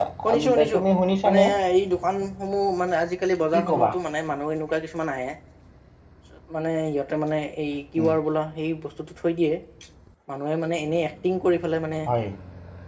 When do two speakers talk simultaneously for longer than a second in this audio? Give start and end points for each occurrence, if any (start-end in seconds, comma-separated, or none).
none